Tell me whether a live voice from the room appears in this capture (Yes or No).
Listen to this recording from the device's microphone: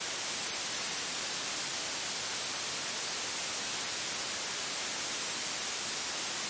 No